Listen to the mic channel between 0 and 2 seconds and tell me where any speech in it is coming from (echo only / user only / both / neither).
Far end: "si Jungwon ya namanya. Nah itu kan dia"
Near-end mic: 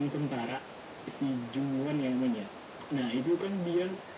echo only